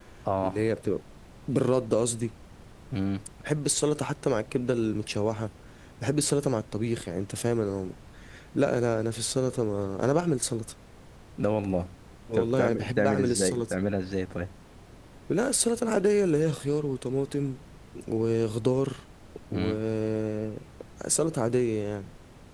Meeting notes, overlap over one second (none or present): present